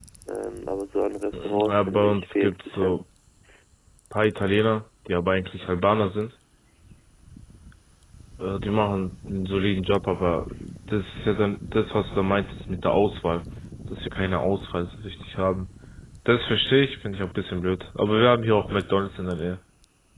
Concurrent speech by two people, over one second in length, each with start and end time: 1.6-3.0

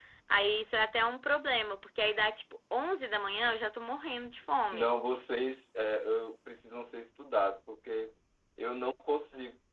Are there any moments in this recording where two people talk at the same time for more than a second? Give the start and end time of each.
none

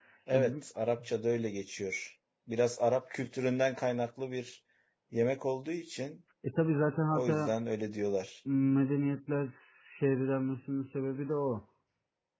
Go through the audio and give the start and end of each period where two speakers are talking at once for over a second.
none

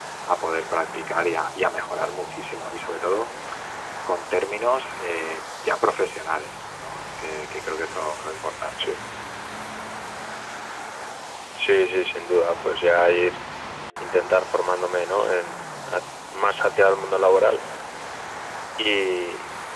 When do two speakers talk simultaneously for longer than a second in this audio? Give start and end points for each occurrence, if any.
none

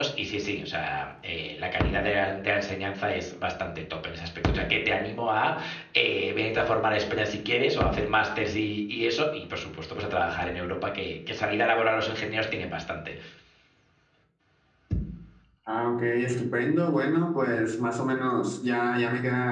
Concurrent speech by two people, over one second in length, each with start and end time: none

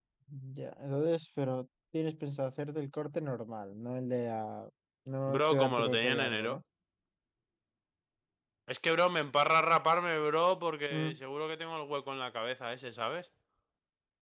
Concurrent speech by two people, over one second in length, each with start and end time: 5.3-6.6

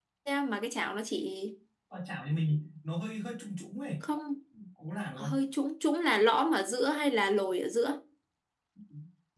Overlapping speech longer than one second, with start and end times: none

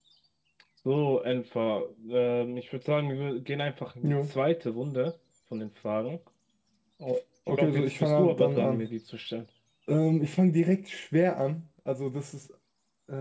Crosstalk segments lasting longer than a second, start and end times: 7.6-8.9

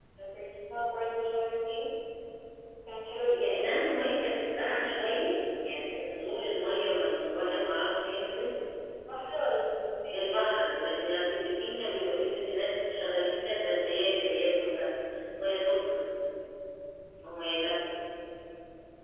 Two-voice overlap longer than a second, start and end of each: none

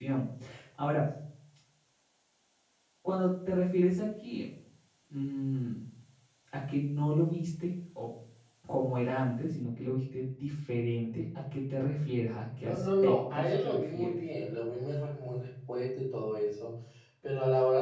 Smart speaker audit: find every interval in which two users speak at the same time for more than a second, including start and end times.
12.6-14.1

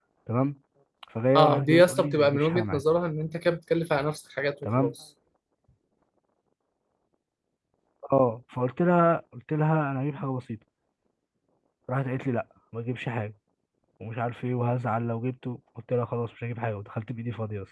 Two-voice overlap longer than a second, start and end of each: 1.4-2.8

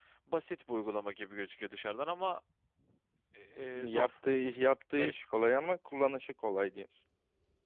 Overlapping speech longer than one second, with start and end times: none

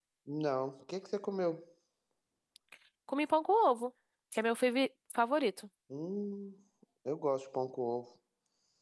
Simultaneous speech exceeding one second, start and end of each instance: none

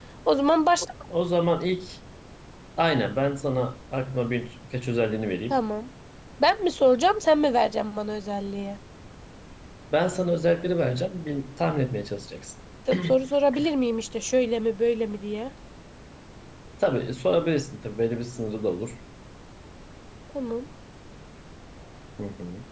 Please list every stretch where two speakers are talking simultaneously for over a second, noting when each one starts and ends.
none

